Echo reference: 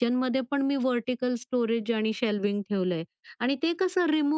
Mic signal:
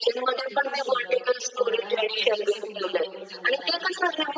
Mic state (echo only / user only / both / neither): both